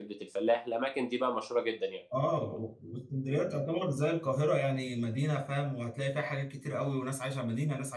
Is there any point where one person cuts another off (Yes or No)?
No